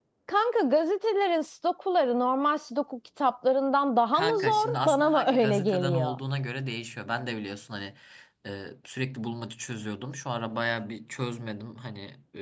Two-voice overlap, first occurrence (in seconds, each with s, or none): 4.1 s